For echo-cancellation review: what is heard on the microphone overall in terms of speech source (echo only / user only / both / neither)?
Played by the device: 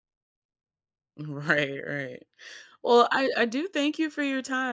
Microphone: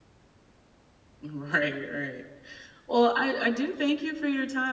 echo only